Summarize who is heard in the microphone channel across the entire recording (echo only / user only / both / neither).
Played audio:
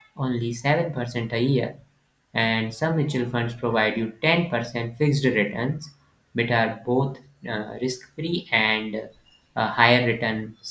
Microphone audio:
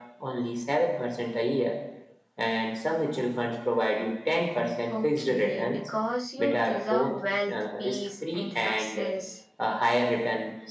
both